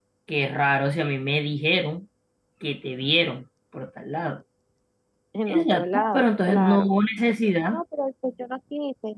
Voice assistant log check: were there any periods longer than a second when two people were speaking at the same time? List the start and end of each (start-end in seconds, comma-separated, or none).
5.5-6.9